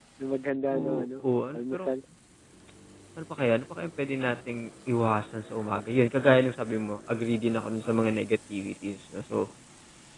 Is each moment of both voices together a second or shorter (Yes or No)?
Yes